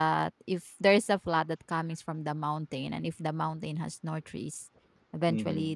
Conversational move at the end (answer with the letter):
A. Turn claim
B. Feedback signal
B